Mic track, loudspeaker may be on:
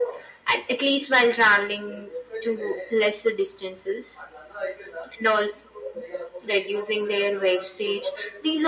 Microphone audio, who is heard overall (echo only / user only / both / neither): echo only